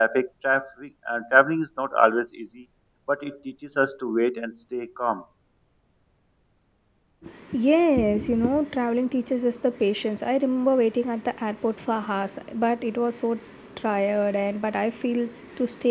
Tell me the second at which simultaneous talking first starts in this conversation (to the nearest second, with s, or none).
none